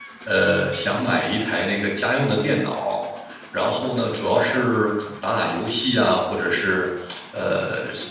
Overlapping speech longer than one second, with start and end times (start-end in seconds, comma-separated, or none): none